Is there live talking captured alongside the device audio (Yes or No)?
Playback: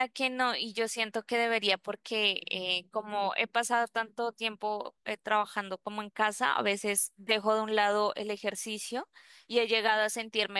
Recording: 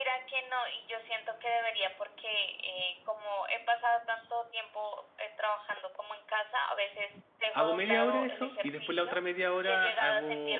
Yes